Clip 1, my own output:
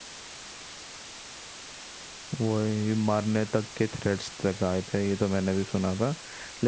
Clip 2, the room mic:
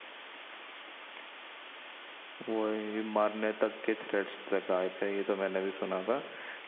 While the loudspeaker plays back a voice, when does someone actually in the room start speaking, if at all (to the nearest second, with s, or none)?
none